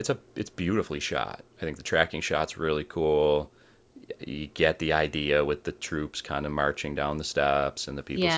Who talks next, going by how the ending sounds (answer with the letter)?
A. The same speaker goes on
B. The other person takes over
B